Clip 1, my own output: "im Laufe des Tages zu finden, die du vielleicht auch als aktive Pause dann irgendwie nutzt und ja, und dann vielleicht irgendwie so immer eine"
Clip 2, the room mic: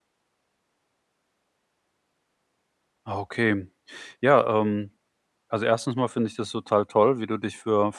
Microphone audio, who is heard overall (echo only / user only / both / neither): user only